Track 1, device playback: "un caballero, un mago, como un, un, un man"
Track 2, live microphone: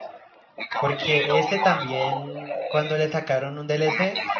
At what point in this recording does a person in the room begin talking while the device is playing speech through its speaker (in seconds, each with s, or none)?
0.8 s